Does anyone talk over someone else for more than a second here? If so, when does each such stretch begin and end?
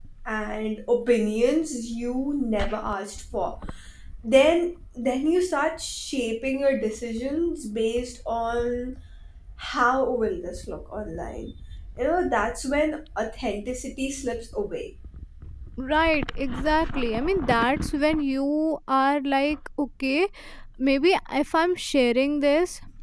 none

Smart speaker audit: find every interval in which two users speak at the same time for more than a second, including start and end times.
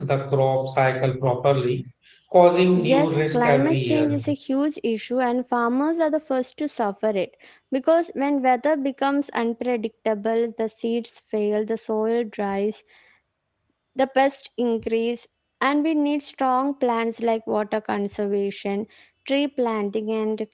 2.8-4.2

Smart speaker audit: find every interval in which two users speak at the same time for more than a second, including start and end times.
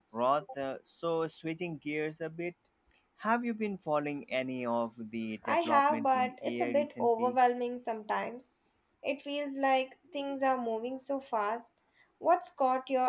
5.5-7.4

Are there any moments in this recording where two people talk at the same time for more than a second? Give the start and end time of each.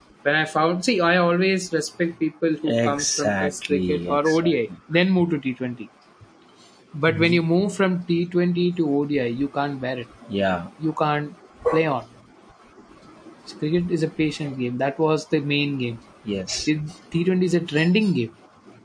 2.7-4.5

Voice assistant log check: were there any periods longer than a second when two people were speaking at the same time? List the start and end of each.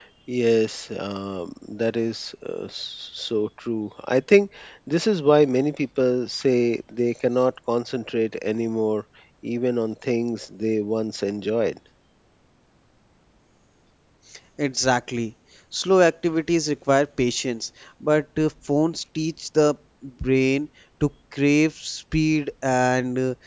none

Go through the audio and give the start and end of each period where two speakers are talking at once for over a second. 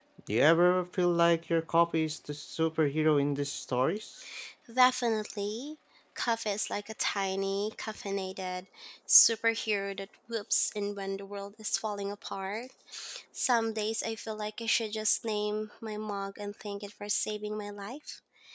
none

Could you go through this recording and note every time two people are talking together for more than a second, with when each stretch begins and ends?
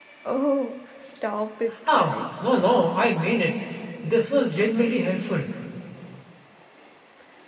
none

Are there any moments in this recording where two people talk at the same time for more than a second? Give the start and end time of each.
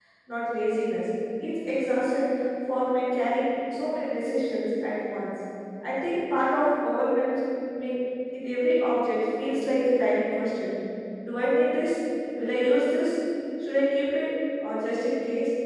none

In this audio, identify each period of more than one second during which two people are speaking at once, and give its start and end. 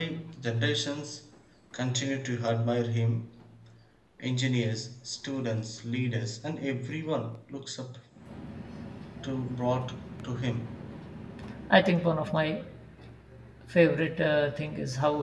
none

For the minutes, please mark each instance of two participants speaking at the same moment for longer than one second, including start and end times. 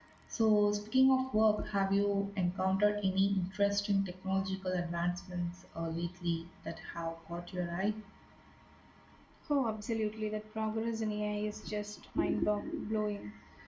none

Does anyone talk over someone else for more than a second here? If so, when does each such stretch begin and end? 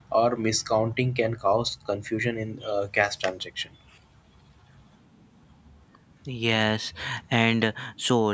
none

